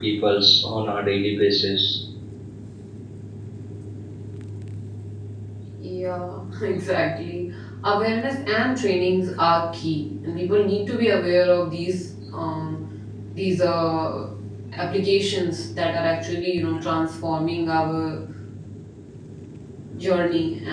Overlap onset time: none

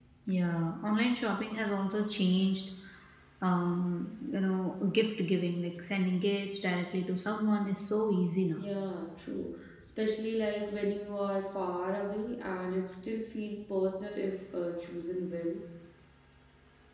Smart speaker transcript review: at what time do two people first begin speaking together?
none

